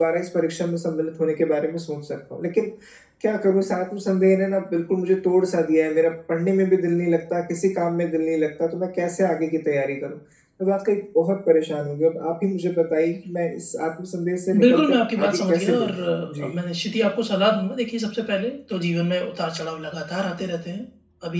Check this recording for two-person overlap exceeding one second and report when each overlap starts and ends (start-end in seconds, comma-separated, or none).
14.6-16.5